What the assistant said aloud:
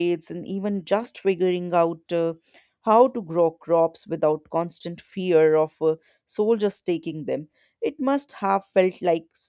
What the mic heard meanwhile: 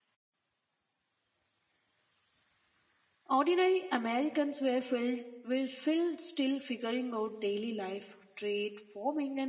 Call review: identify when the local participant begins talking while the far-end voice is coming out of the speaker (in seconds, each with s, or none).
3.3 s